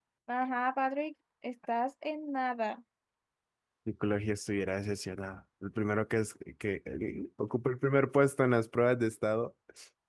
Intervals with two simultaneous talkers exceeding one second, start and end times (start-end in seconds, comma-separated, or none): none